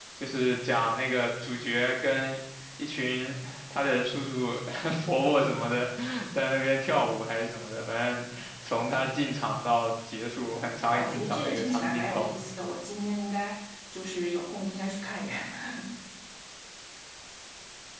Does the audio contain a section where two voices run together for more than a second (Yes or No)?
Yes